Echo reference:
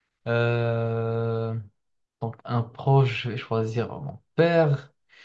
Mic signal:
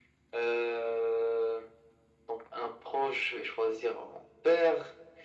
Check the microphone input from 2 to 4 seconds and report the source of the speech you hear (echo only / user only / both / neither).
echo only